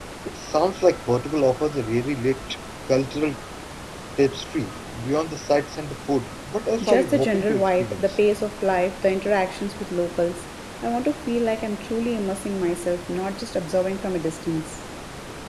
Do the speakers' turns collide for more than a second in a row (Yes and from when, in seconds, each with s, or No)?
Yes, from 6.8 s